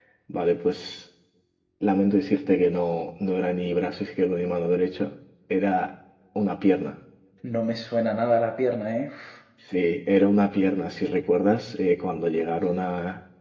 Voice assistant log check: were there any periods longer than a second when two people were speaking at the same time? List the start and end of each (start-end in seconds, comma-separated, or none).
none